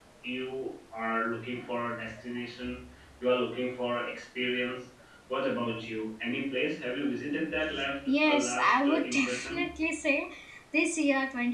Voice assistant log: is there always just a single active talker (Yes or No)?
No